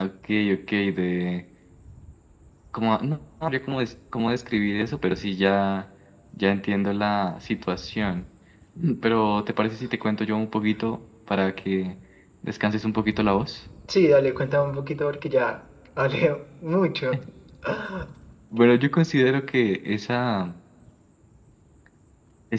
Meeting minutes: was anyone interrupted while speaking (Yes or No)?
No